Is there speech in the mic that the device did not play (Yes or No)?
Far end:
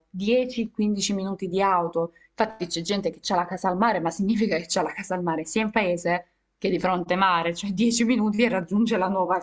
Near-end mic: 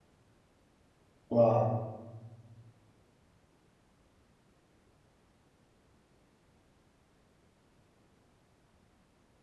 Yes